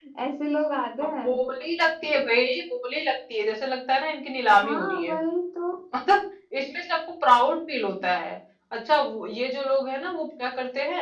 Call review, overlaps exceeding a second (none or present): none